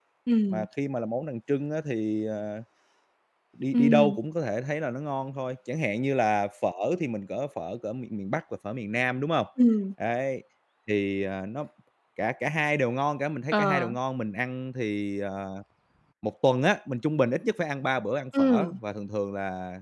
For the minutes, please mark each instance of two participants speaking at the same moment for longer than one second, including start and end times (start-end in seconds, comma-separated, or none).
none